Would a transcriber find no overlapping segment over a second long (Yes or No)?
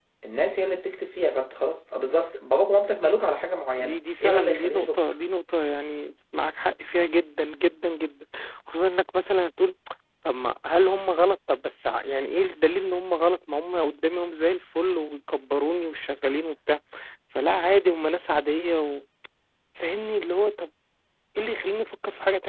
No